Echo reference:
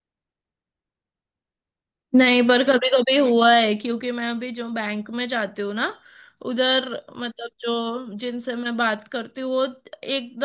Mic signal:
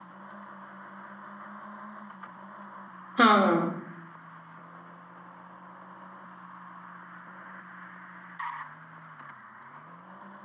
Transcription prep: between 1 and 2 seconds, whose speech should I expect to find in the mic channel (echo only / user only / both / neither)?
neither